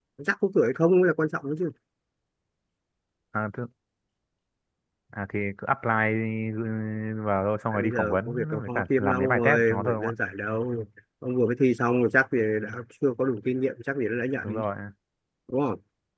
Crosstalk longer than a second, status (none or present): present